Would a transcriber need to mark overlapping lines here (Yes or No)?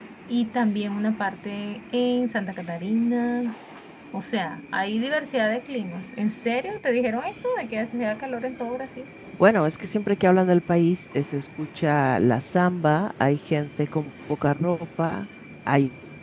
No